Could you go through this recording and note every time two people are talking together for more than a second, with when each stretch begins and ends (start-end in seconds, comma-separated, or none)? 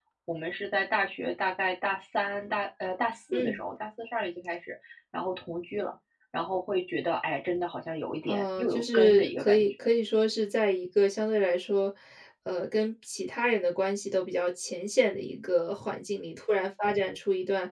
8.2-9.9